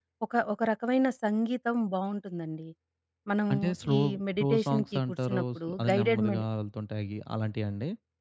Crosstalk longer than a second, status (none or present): present